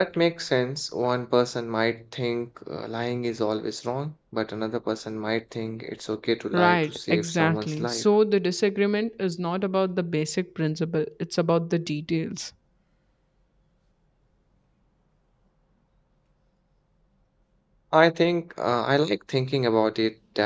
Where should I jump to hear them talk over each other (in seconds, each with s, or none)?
6.5 s